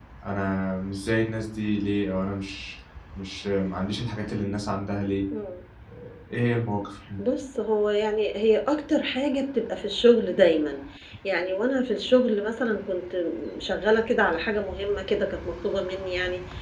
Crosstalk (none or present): none